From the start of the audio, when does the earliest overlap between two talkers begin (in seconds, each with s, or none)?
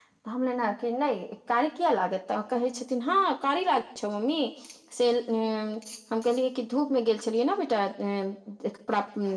none